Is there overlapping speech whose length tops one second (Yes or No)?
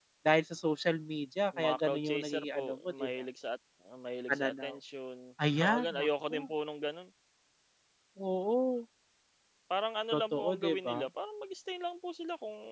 Yes